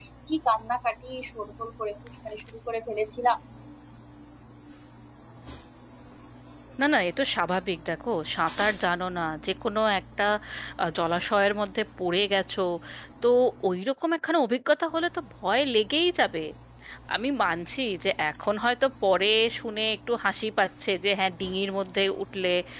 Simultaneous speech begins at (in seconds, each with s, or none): none